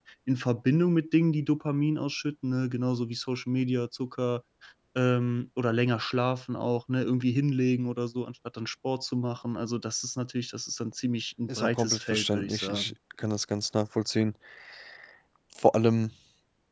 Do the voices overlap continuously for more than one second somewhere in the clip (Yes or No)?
Yes